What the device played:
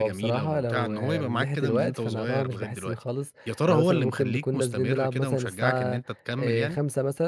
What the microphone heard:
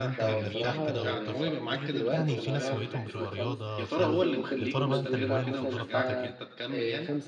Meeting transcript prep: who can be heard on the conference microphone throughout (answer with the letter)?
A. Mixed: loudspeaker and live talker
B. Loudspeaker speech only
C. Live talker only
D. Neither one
A